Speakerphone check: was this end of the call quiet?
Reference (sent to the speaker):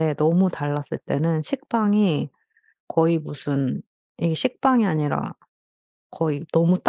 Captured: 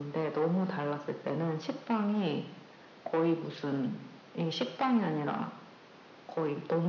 Yes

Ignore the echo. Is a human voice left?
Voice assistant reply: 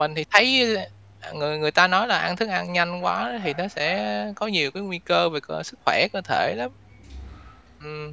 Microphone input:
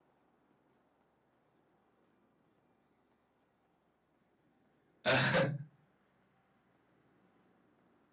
Yes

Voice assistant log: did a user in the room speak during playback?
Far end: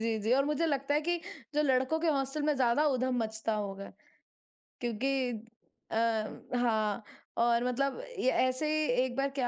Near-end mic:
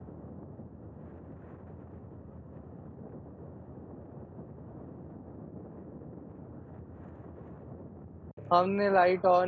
Yes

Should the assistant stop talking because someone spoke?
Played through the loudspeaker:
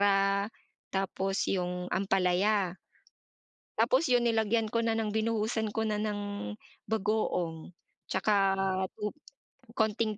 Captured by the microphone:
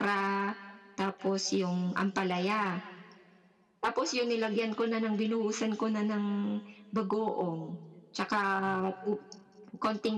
No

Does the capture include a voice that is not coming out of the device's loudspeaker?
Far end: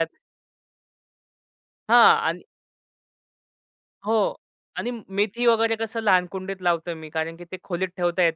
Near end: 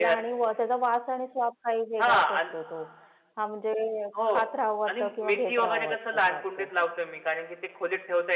Yes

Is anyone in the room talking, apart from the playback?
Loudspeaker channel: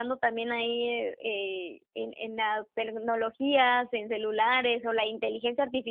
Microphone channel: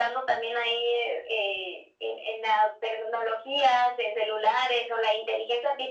No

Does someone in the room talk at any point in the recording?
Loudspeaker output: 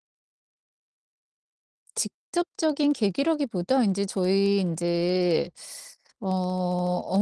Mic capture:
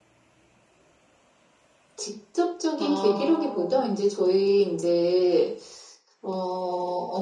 Yes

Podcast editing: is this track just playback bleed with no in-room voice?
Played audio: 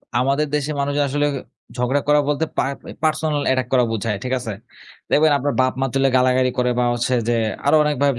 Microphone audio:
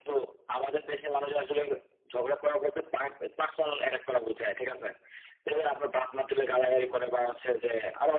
Yes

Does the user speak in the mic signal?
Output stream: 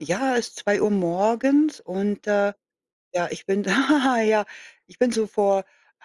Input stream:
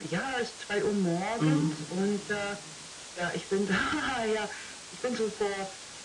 Yes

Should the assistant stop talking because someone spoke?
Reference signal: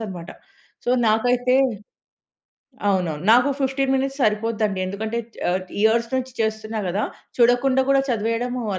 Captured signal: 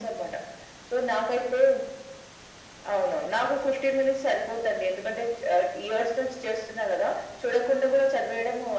No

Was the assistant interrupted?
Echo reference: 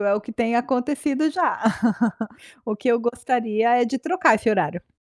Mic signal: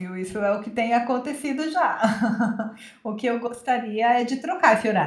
No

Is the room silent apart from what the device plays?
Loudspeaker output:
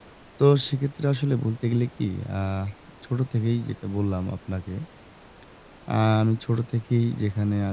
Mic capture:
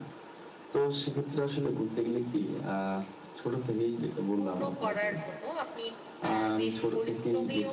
No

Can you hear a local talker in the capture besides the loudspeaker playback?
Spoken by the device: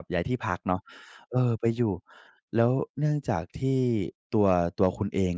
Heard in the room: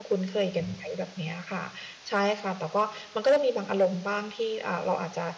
Yes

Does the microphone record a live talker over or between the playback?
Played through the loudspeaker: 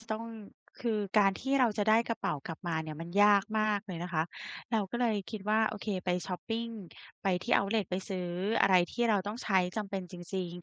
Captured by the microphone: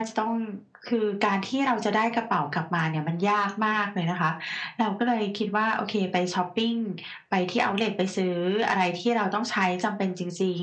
No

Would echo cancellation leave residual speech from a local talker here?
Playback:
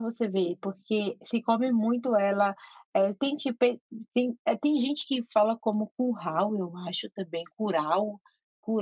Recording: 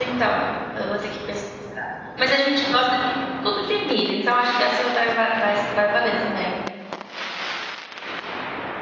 Yes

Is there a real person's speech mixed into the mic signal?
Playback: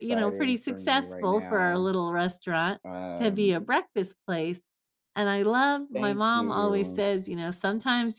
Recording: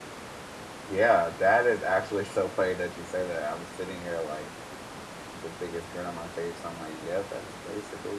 Yes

